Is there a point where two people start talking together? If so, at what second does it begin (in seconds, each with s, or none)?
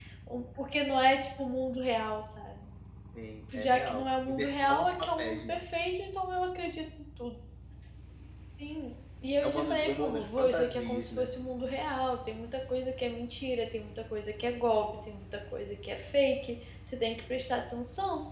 3.5 s